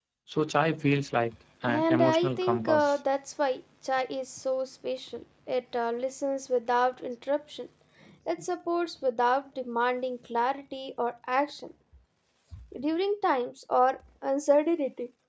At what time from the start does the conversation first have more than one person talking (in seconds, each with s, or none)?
1.6 s